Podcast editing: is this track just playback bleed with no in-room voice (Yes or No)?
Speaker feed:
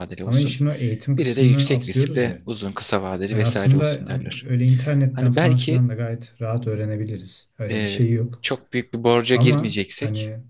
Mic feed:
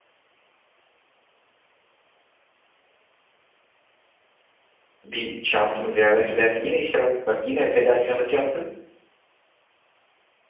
No